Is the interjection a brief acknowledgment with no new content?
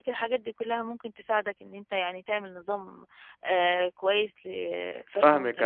No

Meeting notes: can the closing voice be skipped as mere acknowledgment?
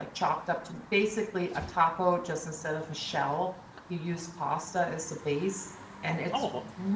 Yes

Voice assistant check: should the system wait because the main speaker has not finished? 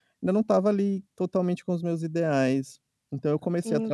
No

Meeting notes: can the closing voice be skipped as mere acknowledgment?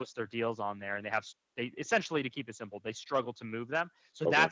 Yes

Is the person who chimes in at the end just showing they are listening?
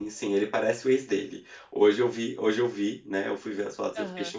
Yes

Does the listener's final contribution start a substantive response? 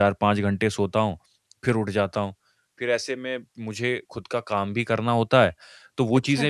No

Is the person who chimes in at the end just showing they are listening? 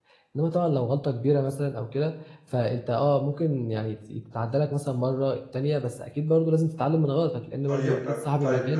No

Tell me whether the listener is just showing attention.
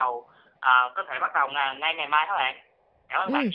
No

